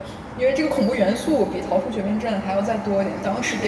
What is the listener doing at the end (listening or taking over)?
listening